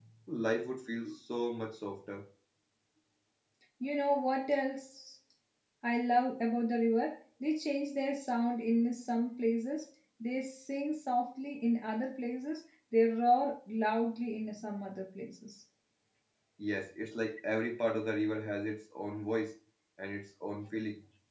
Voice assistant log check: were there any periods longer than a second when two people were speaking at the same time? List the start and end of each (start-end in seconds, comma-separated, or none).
none